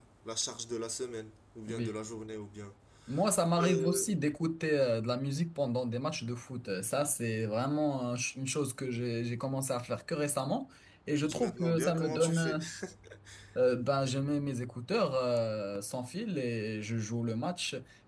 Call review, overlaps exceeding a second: present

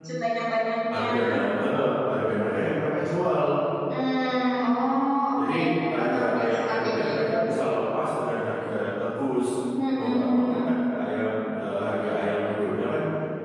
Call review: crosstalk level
present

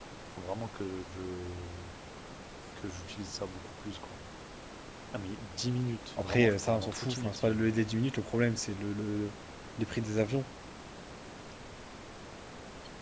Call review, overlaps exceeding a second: present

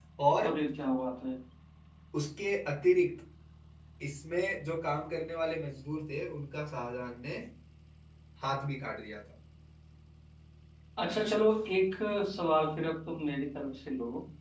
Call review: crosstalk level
none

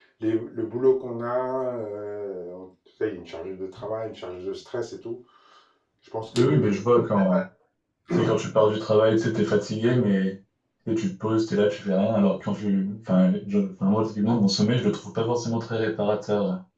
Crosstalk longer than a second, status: none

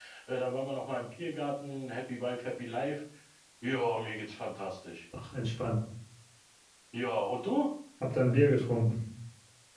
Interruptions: none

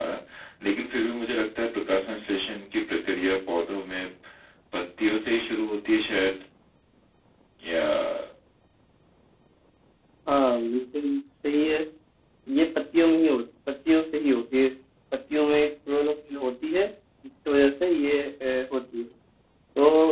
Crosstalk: none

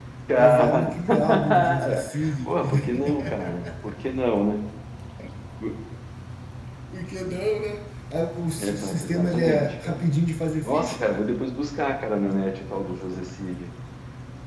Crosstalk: present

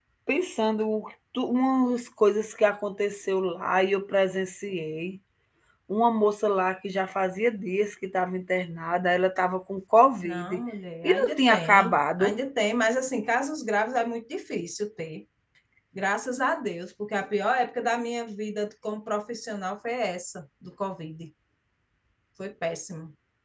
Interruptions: present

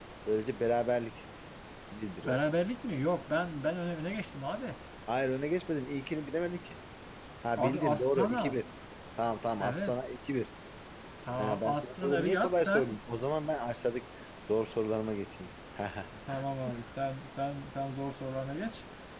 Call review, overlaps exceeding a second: present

